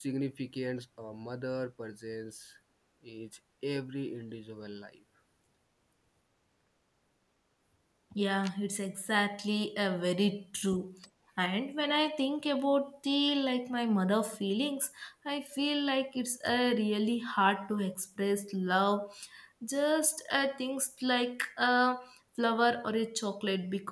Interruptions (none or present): none